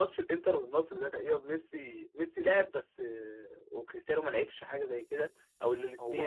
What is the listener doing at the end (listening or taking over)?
taking over